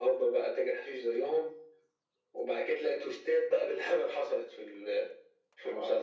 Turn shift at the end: Yes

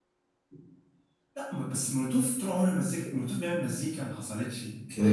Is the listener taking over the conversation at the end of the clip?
Yes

